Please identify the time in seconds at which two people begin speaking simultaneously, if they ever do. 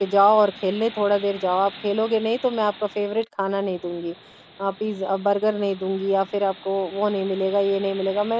none

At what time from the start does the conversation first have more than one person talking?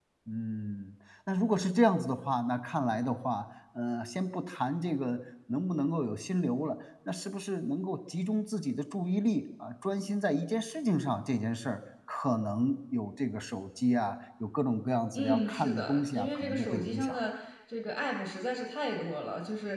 15.1 s

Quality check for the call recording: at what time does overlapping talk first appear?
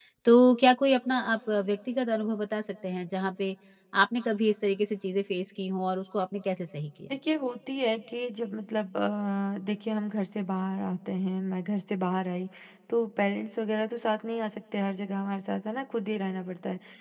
none

